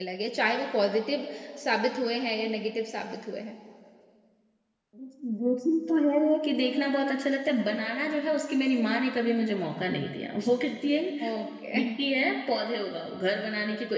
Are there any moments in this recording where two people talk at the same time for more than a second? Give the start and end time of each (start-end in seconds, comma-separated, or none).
none